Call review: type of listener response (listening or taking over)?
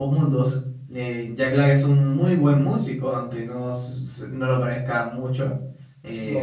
listening